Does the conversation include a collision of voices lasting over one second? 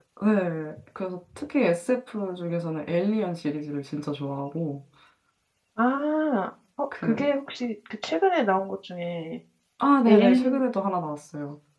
No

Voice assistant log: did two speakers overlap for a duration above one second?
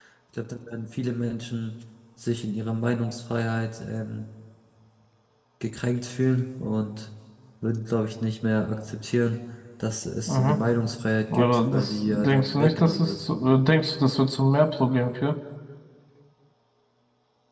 Yes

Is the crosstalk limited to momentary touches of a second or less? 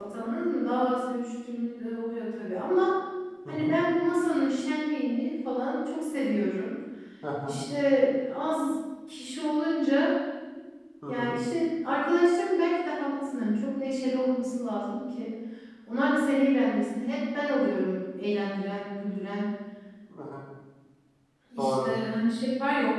Yes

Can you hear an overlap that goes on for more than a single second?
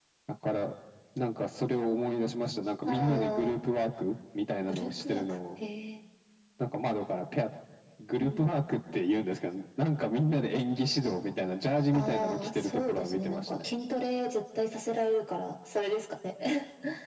Yes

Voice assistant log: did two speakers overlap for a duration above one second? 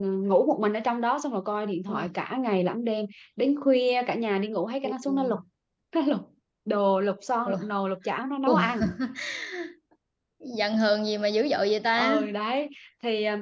No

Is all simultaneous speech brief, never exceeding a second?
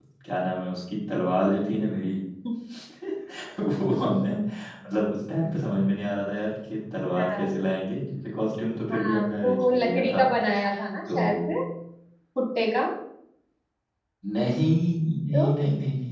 No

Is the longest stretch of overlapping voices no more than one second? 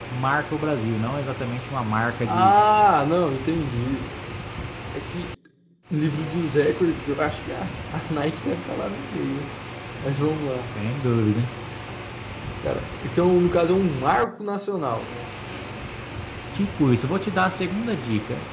Yes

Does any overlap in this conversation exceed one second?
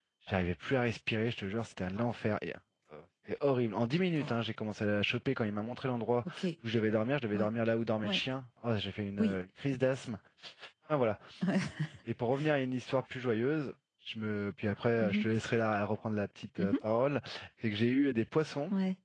No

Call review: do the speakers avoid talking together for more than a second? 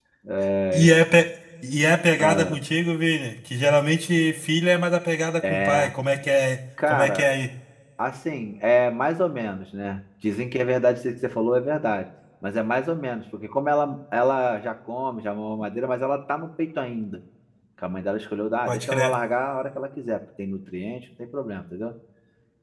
Yes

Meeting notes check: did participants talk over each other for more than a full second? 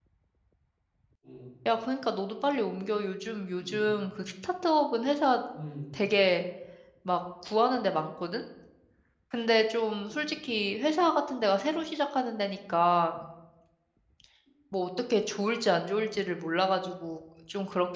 No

